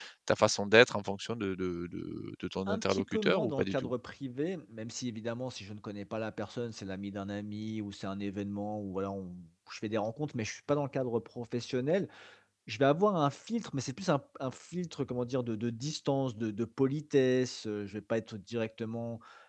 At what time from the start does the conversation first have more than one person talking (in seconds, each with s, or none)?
2.7 s